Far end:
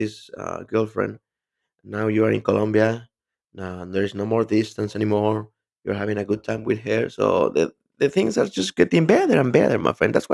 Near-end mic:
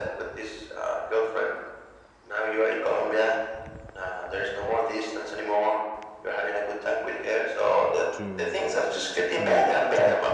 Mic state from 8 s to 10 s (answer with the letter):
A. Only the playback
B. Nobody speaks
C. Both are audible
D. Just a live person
C